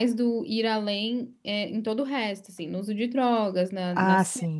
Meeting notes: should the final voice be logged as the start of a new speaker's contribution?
Yes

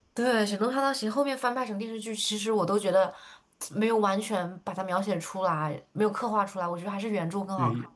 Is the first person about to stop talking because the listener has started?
Yes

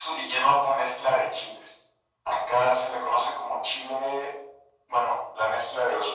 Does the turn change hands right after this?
Yes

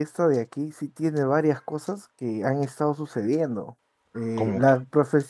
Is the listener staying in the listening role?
Yes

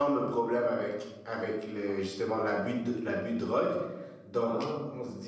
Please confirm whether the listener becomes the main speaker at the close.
No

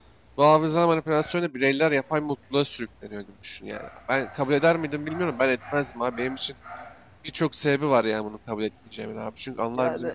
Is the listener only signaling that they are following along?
Yes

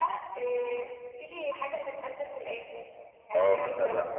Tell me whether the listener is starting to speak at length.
Yes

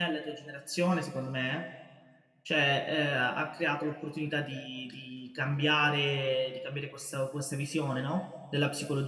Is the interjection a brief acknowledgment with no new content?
Yes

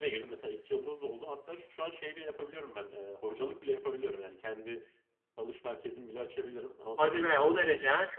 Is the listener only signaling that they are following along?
No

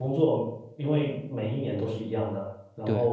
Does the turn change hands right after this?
No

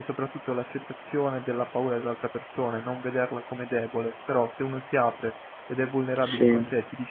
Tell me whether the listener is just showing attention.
Yes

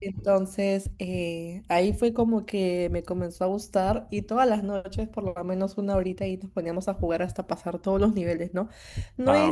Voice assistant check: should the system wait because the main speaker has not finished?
Yes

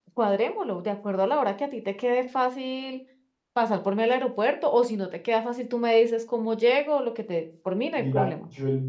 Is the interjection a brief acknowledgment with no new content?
No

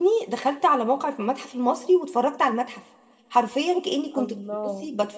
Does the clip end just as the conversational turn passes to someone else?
No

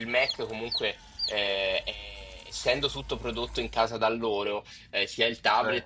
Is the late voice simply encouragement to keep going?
Yes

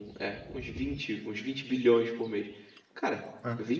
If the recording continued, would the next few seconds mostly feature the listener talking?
No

